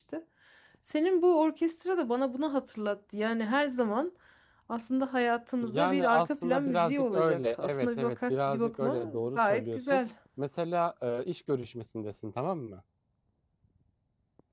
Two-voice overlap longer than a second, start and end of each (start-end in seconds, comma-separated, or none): 5.6-10.0